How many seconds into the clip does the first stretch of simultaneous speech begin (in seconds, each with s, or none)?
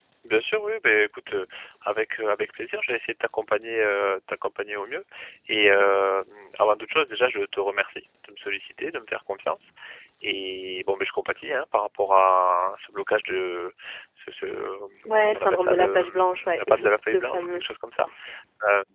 15.1 s